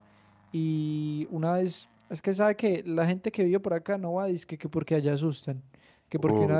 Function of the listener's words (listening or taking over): listening